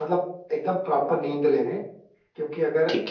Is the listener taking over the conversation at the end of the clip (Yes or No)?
No